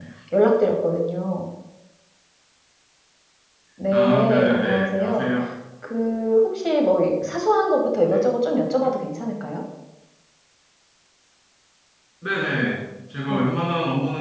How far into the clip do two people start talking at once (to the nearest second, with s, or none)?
4 s